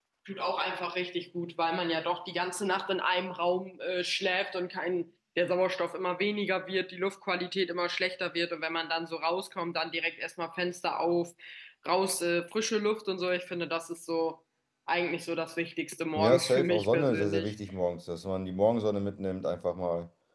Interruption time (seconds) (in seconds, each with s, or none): 16.2 s